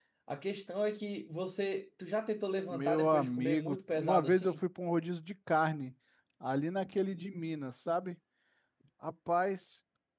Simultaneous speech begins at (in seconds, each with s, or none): 2.7 s